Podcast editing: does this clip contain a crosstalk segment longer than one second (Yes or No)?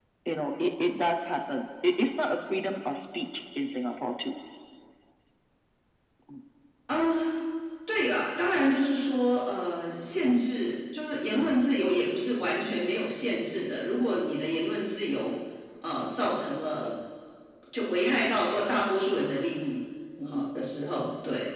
No